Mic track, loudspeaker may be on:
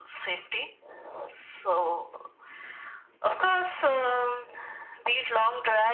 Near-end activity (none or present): none